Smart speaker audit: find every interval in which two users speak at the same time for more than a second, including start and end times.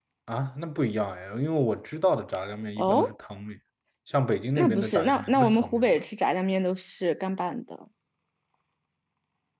4.6-6.0

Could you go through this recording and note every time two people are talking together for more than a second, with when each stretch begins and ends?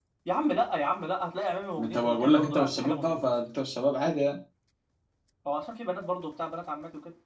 1.8-3.3

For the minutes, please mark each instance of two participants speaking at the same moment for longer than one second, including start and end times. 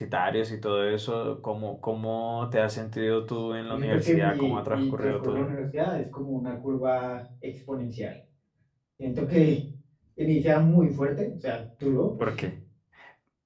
3.7-5.5

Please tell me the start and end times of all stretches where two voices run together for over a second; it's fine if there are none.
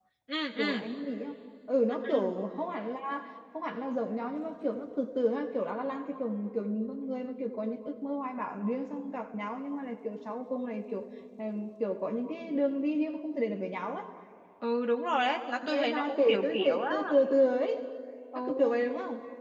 15.7-16.9

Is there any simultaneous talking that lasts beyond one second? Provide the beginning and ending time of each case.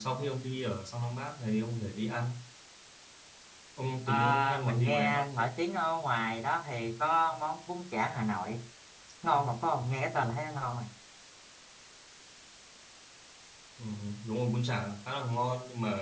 4.1-5.5

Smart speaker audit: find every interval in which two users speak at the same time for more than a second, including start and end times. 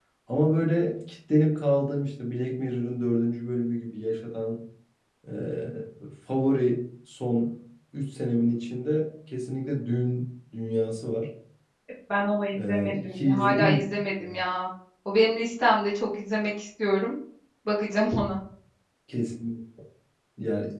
12.5-13.8

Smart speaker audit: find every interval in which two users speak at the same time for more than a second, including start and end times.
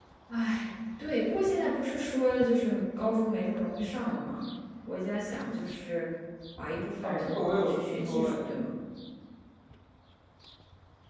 7.0-8.5

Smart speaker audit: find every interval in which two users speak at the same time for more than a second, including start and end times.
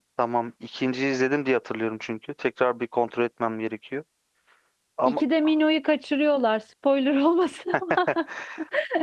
none

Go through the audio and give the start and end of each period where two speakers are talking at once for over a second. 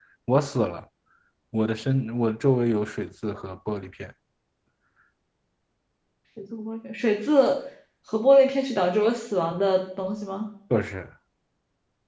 none

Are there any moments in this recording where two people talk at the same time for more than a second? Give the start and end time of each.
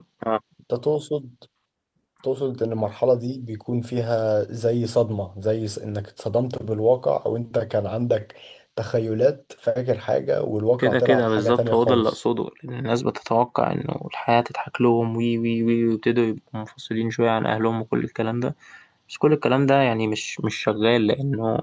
10.8-12.2

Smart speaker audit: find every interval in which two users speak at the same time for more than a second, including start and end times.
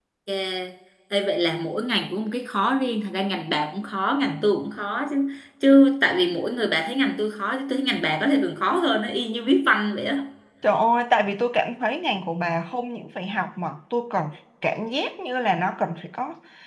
none

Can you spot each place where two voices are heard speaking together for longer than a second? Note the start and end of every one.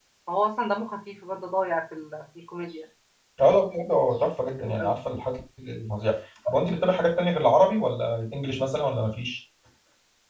none

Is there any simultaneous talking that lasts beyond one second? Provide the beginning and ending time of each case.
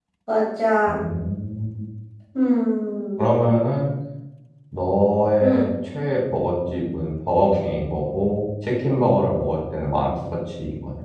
none

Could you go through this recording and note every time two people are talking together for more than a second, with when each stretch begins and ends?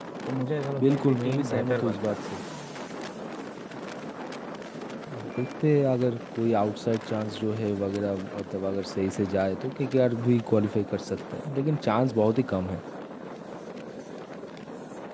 0.8-2.1

